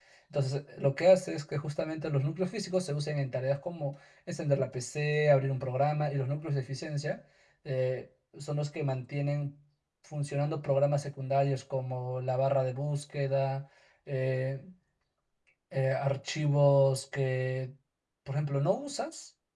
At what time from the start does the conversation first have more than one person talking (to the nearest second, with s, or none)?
none